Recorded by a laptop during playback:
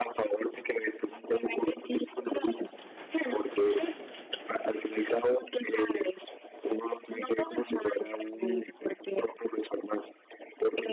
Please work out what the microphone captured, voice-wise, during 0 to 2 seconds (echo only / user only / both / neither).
echo only